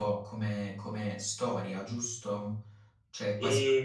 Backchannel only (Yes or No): Yes